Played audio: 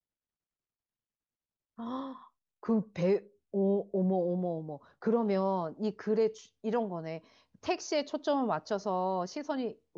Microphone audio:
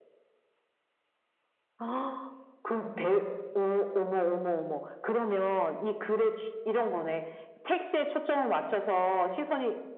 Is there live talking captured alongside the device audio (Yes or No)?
No